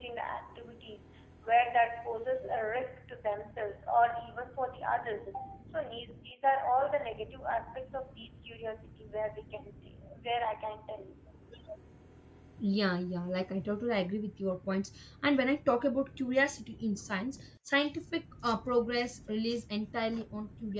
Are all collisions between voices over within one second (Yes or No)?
Yes